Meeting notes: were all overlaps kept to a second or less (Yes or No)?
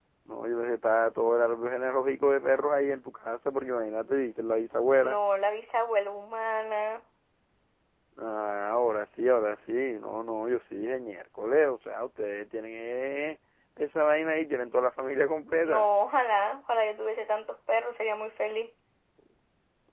Yes